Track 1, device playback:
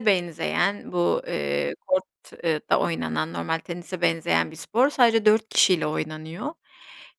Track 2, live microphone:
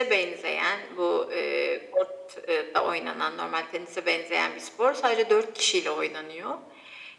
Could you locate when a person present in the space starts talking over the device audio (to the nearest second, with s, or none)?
none